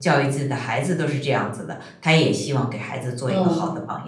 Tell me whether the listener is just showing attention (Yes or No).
No